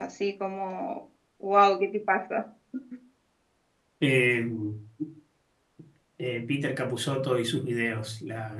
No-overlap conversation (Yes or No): Yes